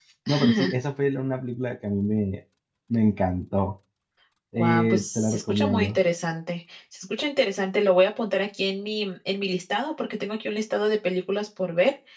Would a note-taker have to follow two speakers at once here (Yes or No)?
Yes